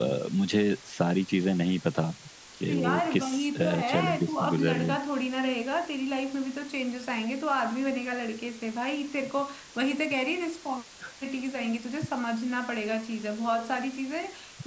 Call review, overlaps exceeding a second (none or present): present